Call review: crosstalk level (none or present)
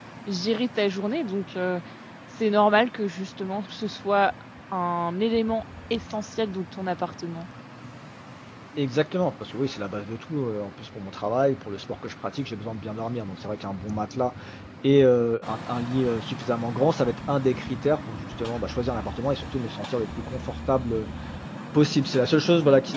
none